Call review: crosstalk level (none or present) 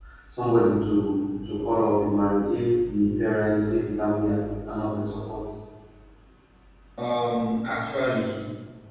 none